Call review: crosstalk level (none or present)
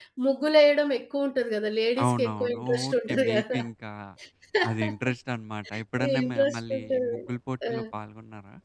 present